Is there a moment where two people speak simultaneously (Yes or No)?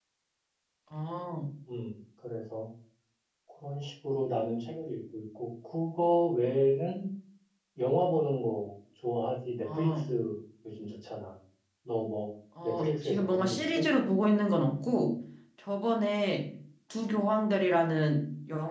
Yes